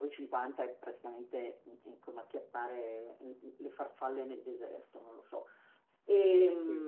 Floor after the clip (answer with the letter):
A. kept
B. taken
A